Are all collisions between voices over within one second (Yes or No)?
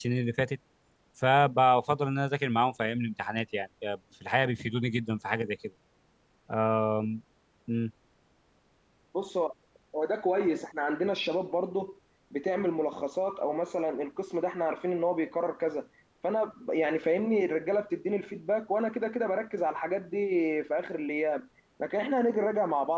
Yes